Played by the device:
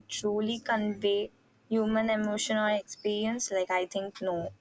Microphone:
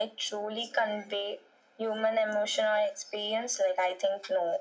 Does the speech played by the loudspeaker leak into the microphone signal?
Yes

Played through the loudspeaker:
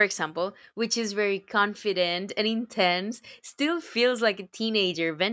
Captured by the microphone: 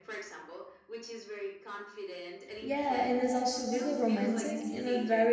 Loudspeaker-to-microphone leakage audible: Yes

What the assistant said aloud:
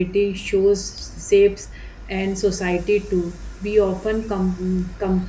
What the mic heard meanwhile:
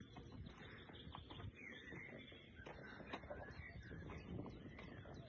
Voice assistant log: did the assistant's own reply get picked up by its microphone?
No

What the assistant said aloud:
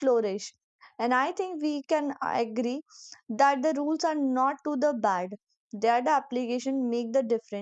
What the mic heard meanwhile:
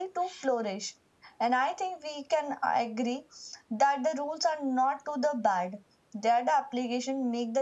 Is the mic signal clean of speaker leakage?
No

